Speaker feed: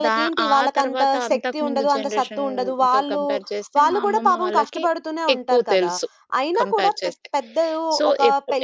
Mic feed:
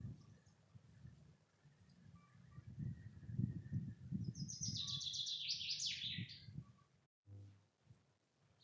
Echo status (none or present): none